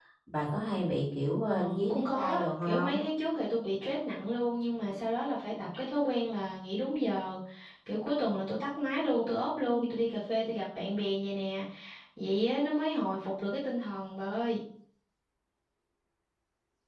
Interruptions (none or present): present